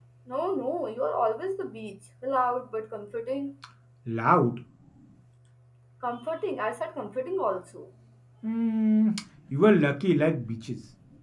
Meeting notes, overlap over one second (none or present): none